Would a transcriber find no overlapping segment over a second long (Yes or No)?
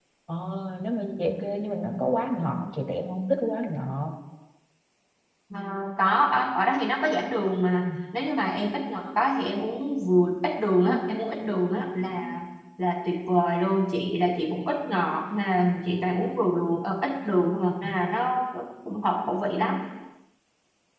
Yes